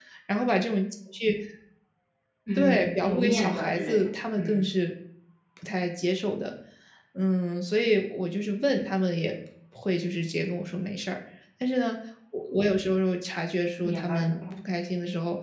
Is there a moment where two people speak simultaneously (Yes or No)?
Yes